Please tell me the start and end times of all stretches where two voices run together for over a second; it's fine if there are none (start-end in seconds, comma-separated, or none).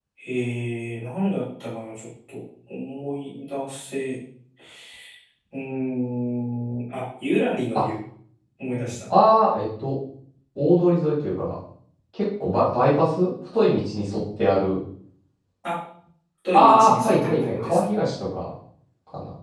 16.5-17.8